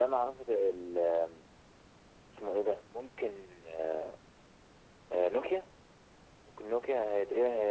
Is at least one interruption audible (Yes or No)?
No